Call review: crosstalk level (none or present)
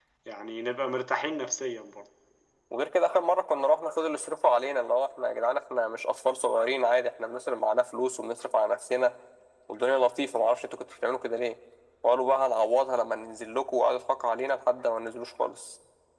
none